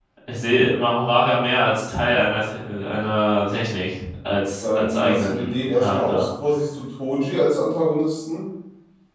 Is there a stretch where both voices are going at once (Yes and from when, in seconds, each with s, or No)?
Yes, from 4.6 s